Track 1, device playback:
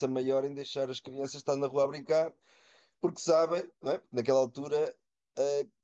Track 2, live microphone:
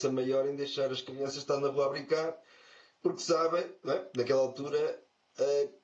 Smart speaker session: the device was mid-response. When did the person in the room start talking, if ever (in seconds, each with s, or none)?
none